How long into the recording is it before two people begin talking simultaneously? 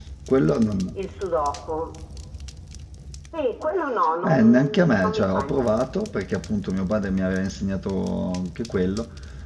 4.2 s

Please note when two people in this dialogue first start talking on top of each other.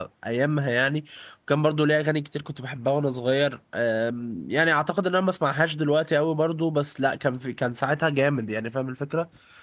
none

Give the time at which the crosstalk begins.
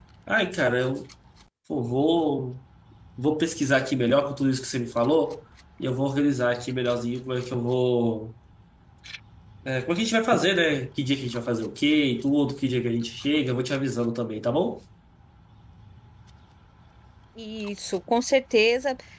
none

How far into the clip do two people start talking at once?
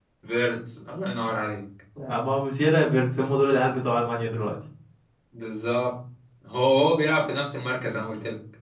none

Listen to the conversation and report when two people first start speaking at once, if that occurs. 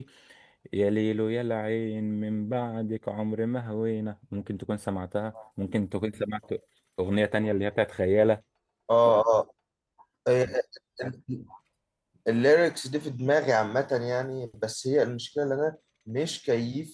none

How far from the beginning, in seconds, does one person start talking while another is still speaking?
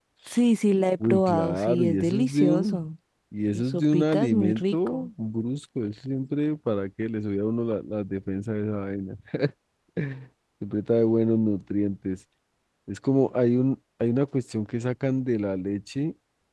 1.0 s

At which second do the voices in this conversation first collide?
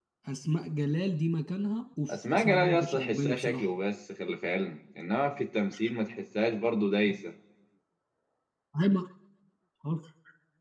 2.1 s

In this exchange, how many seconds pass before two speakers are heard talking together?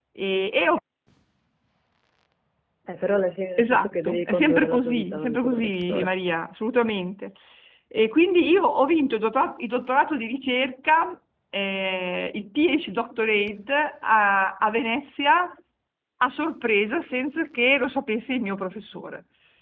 3.6 s

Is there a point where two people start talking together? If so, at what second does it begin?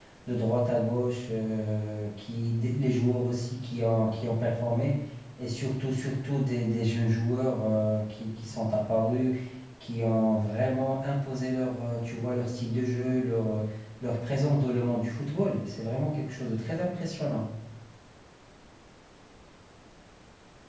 none

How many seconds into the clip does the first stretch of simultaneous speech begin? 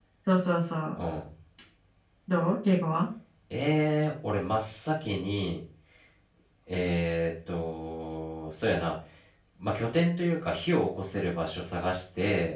none

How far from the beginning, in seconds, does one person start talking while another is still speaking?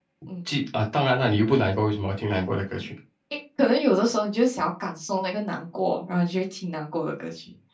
none

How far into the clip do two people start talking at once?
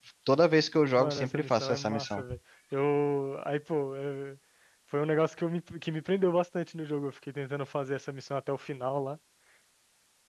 1.0 s

